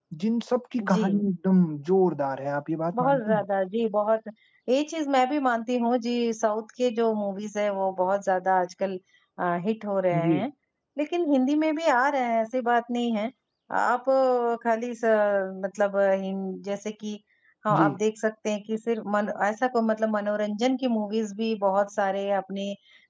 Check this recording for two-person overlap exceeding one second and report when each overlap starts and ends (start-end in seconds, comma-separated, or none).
none